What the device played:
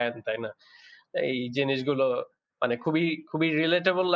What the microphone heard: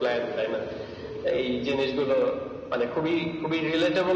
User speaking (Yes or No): No